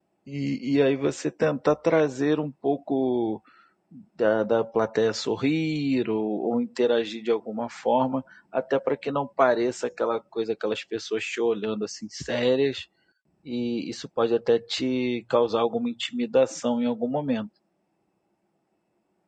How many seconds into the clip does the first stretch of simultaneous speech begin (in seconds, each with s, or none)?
none